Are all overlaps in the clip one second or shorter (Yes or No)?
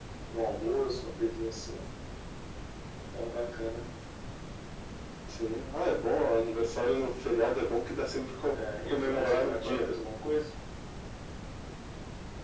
No